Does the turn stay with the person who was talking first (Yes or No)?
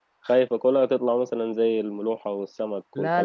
No